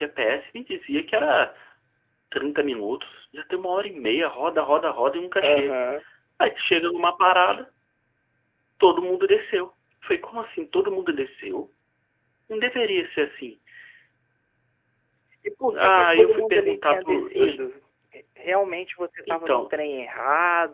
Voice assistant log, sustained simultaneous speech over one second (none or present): present